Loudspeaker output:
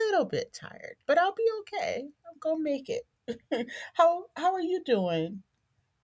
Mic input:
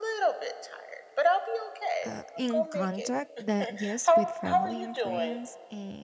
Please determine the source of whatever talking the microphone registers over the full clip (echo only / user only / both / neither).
both